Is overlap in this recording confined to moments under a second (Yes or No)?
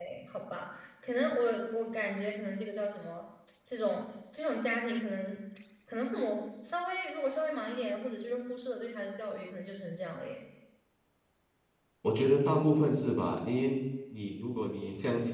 Yes